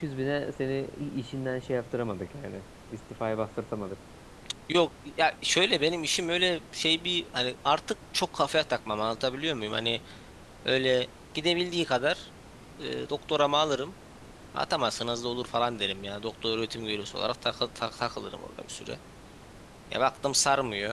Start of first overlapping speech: none

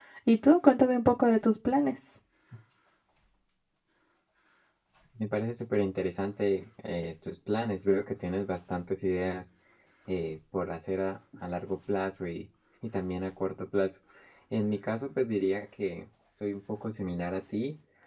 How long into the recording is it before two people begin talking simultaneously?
none

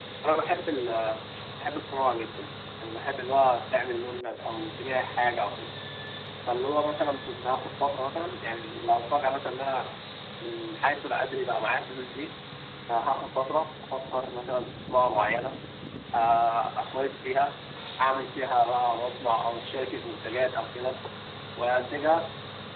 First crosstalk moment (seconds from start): none

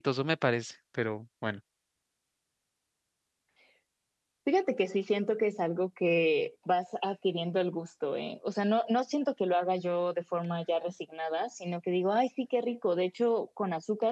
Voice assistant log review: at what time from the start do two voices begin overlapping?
none

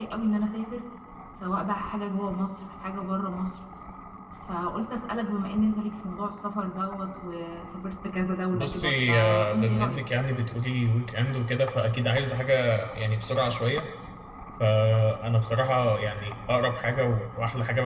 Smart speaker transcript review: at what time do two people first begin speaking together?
9 s

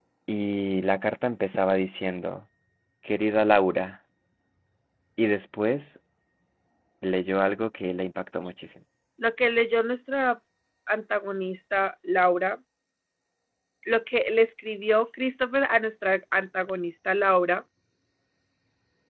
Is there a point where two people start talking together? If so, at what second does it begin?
none

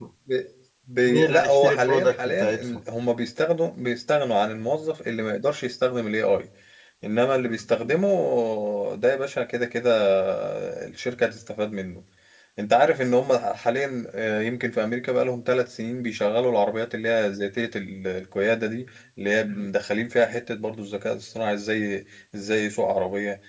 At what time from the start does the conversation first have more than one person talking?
1 s

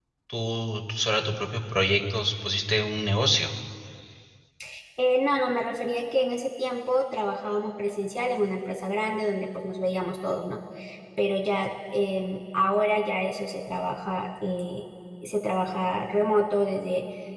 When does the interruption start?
none

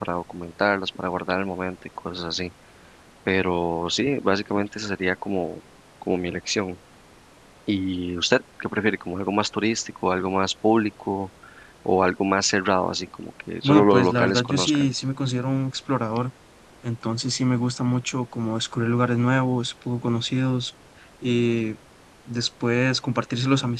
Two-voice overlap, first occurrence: 14 s

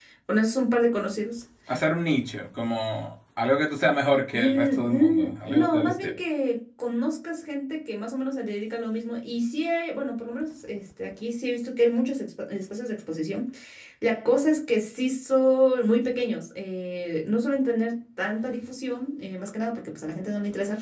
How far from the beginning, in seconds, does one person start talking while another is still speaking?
4 s

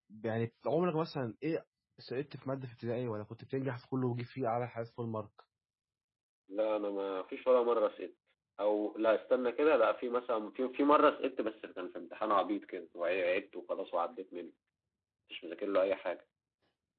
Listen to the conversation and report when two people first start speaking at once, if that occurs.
none

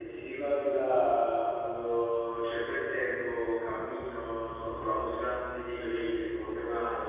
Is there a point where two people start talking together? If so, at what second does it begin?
none

